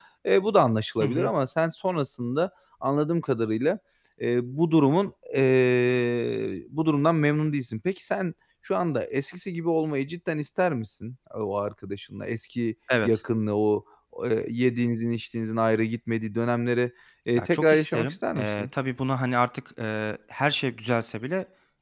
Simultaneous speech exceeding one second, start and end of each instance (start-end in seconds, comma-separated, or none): 17.4-18.7